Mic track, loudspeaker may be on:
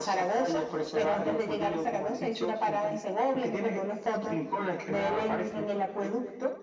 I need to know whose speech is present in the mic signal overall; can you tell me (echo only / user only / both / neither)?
echo only